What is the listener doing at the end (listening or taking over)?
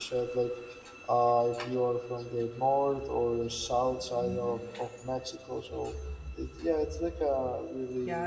taking over